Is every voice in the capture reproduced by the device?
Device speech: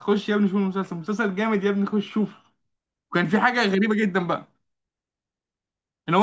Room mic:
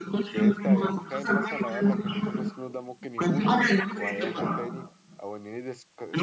No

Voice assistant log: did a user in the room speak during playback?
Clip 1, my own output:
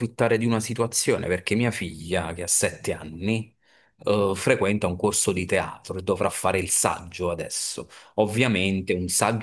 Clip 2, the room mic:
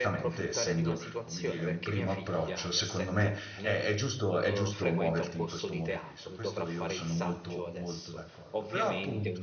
Yes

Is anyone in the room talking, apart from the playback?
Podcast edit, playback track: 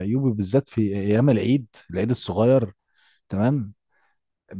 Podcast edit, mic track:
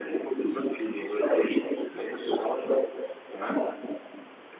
No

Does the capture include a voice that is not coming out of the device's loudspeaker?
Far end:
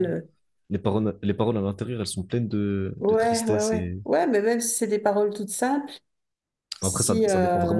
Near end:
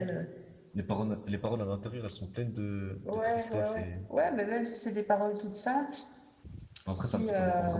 No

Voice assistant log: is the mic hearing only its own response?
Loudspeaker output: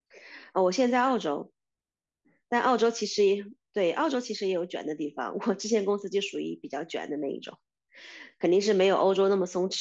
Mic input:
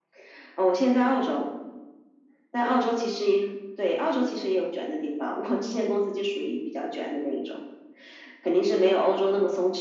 Yes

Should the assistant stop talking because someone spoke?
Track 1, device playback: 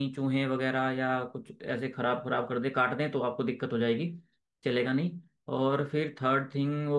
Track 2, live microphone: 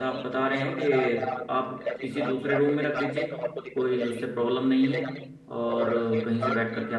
Yes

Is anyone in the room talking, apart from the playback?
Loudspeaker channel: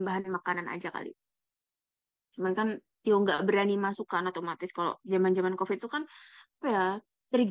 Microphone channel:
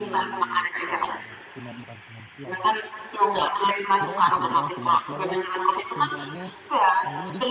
Yes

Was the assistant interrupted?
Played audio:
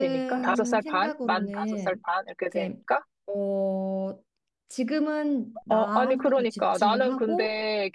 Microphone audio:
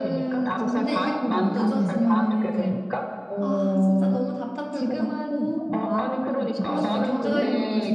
Yes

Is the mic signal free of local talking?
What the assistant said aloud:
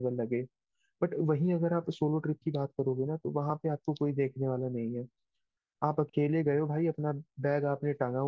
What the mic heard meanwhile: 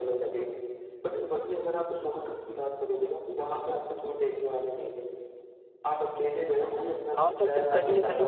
No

